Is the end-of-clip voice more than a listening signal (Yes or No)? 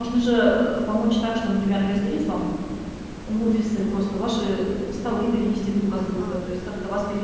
No